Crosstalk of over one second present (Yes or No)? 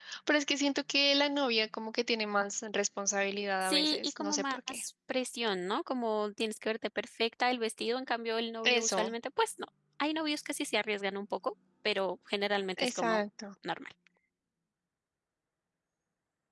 Yes